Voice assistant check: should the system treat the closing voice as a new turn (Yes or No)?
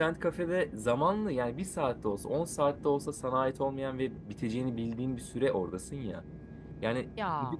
No